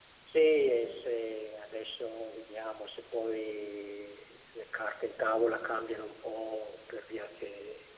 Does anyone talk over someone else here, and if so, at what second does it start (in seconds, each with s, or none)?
none